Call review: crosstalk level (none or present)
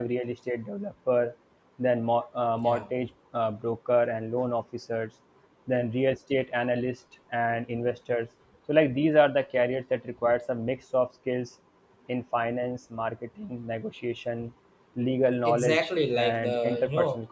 present